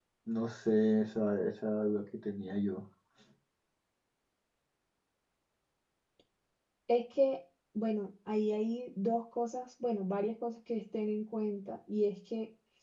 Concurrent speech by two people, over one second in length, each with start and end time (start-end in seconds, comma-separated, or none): none